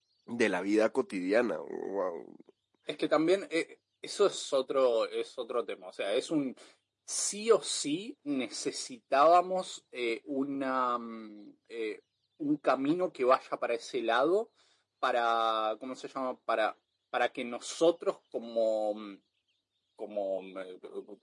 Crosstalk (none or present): none